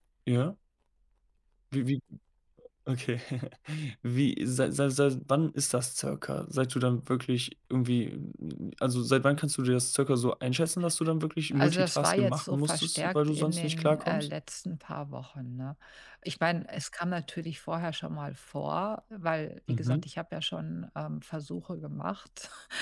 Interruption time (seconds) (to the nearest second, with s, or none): 12 s